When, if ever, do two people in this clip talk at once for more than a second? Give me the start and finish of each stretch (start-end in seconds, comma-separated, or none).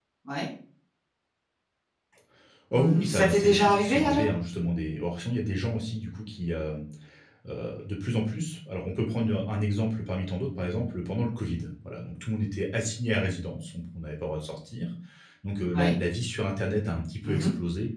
2.7-4.2